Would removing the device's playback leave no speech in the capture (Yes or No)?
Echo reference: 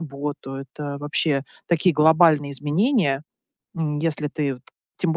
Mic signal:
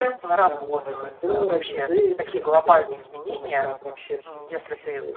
No